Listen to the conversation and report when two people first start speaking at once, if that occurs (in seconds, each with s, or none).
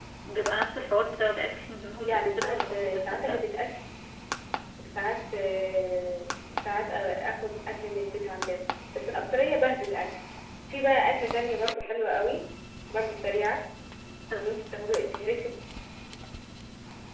2.0 s